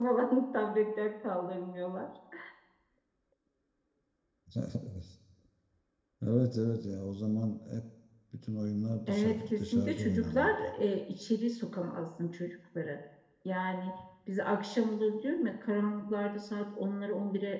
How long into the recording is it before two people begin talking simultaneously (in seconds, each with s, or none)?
9.1 s